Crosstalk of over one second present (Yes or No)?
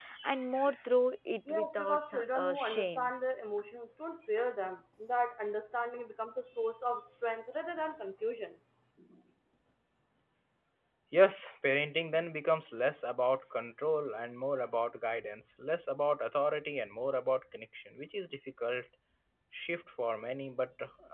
Yes